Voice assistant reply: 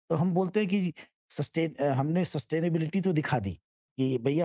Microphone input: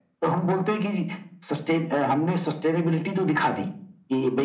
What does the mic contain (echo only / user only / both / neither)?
echo only